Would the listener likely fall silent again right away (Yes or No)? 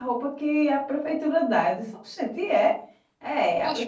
No